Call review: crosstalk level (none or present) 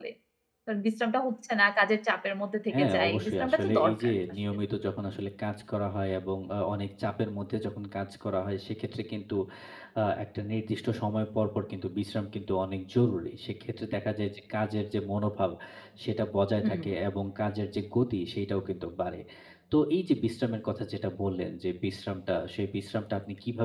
present